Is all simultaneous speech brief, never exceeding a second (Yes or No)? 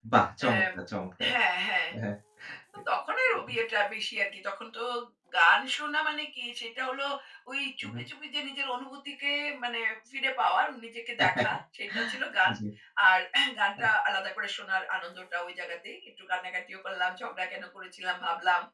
Yes